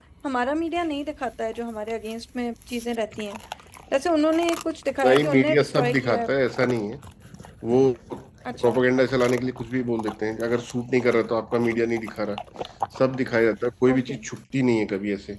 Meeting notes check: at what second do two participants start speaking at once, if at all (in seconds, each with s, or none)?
5.0 s